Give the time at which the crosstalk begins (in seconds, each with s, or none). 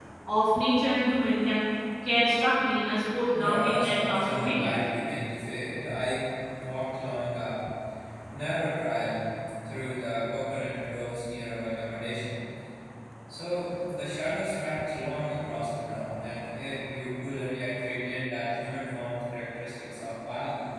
3.3 s